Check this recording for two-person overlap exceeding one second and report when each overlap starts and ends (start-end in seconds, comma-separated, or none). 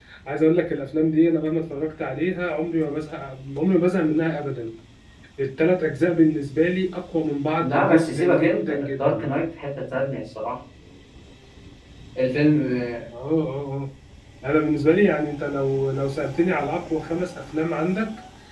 7.6-9.2